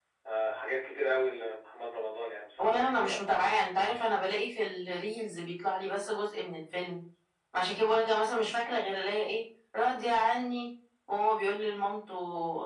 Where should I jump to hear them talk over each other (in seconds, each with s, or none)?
2.6 s